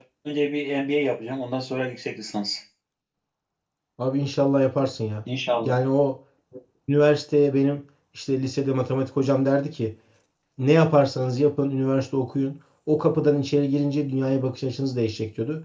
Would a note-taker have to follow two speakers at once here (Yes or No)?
No